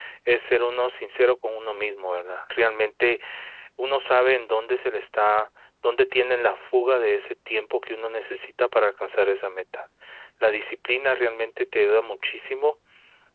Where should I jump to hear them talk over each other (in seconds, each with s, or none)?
none